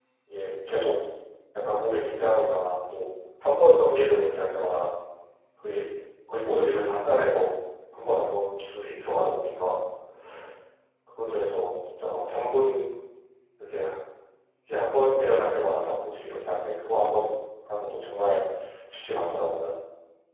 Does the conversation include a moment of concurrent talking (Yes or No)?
No